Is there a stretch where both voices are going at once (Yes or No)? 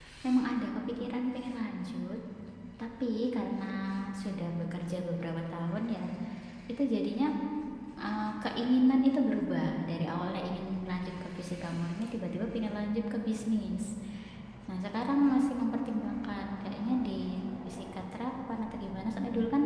No